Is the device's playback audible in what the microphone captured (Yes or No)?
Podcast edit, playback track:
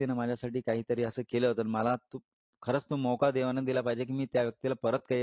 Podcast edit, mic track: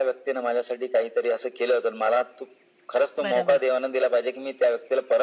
Yes